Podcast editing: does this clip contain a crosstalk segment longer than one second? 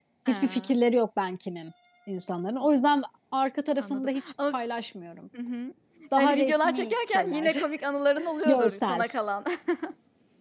Yes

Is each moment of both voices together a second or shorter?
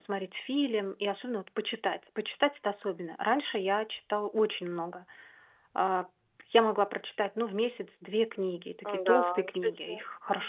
No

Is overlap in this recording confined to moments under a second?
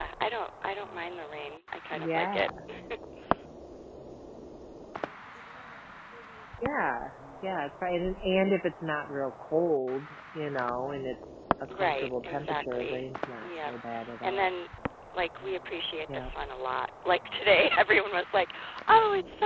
No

